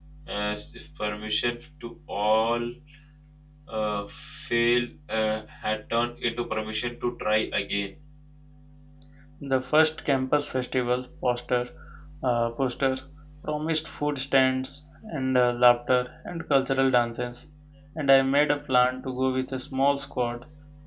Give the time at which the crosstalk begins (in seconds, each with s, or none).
none